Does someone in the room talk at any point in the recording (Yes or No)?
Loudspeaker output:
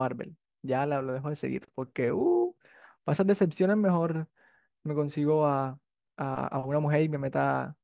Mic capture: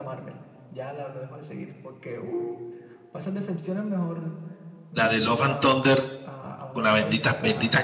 Yes